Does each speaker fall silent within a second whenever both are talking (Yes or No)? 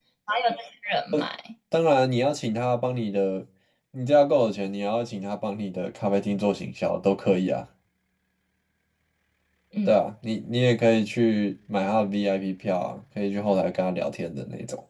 Yes